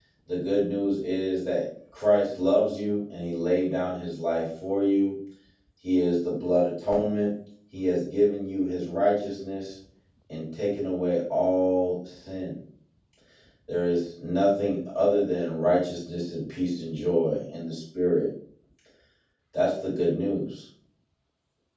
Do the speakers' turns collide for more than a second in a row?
No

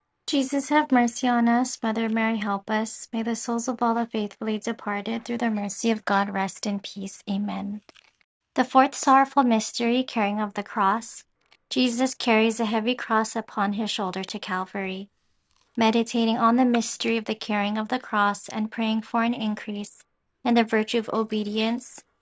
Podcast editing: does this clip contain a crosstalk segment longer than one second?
No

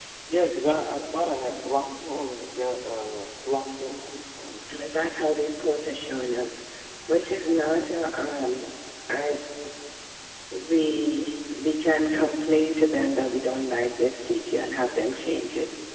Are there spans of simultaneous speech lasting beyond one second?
No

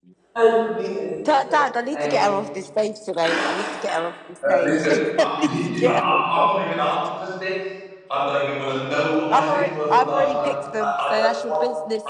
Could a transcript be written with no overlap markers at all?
No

